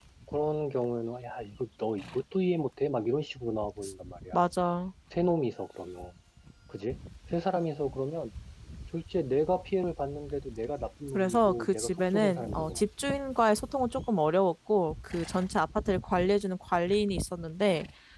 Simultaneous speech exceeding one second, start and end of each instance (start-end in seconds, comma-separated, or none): 11.1-12.8